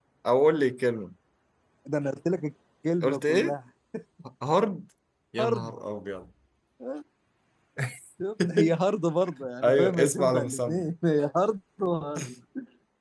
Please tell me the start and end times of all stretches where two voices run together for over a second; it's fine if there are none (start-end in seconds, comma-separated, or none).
9.6-10.8